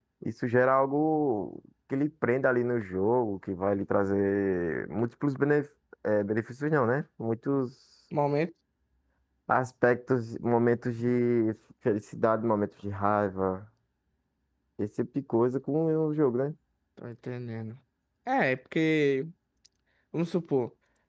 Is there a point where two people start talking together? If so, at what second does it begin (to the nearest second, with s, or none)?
none